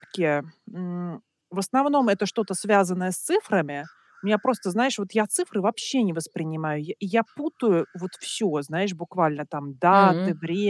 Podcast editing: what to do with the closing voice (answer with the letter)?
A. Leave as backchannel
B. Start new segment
A